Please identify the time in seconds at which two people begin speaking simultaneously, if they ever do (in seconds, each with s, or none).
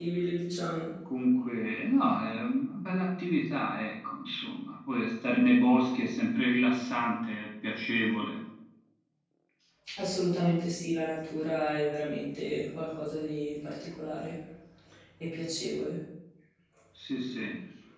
none